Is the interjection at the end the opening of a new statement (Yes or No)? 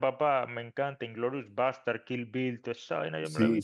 Yes